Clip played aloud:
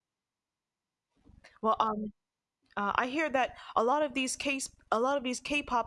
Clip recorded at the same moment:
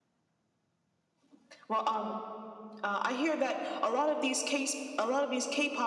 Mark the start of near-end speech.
none

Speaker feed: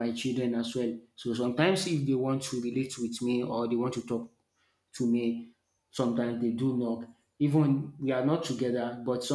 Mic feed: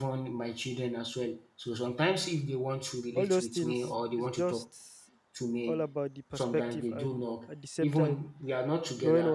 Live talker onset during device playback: 3 s

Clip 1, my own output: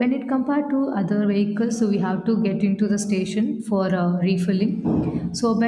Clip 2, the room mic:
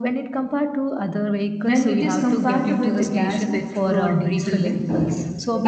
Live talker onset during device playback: 2 s

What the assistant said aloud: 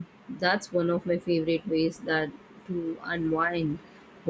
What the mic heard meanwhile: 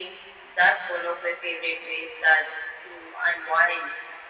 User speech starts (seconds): none

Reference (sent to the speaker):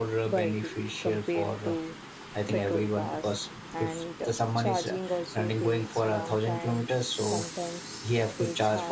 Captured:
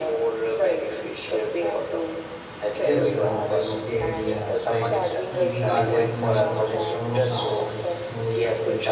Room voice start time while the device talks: 3 s

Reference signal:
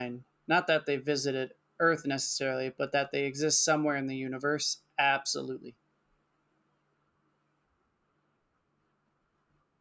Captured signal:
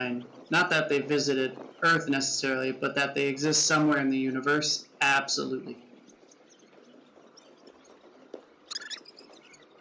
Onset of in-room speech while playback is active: none

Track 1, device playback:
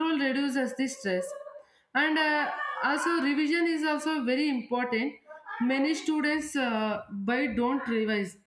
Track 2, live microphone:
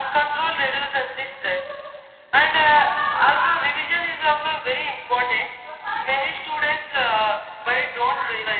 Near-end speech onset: none

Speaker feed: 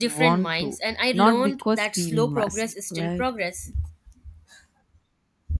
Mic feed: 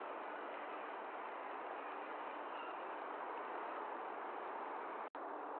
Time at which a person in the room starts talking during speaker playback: none

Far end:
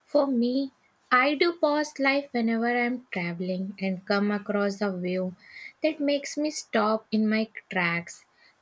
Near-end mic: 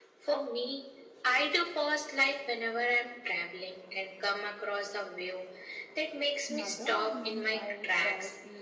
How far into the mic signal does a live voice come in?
6 s

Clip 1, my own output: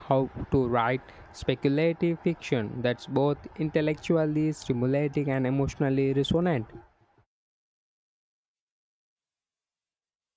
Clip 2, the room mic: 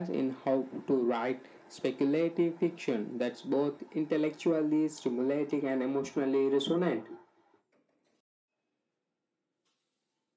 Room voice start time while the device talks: none

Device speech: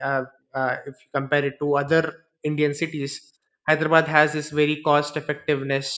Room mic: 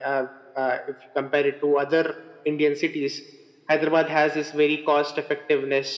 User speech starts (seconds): none

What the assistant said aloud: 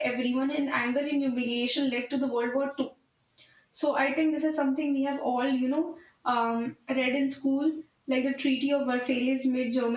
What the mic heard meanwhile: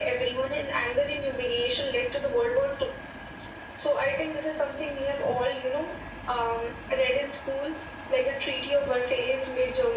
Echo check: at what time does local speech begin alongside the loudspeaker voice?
none

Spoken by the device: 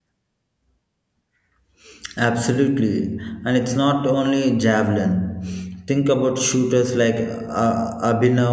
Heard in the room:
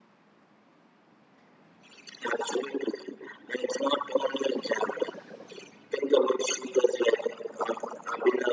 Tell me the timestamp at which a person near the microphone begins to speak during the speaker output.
none

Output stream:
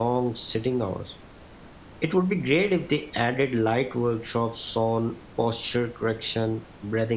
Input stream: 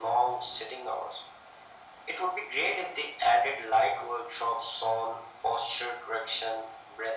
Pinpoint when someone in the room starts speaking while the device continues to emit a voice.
none

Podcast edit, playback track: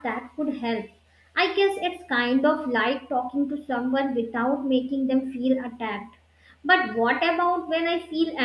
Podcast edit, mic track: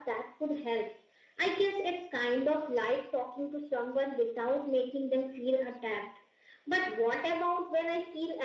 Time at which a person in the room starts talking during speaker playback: none

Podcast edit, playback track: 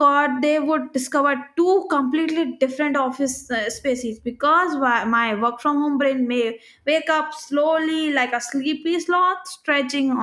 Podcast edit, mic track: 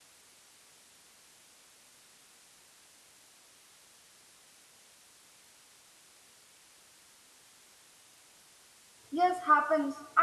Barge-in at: 9 s

